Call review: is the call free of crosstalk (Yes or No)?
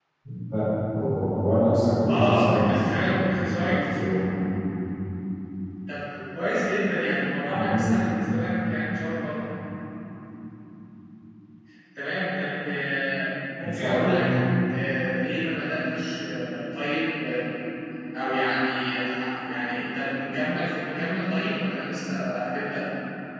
No